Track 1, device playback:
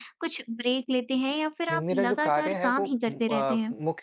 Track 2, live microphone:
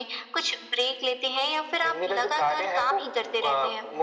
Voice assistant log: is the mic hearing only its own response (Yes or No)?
Yes